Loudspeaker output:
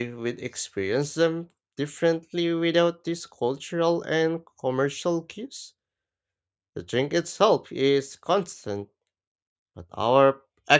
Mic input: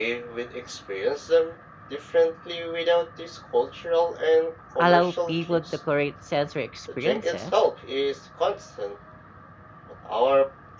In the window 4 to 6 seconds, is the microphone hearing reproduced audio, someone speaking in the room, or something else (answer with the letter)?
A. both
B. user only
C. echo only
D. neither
A